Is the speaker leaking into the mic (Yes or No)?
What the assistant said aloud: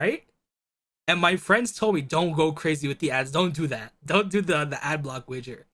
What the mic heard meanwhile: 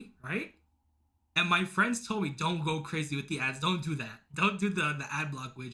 Yes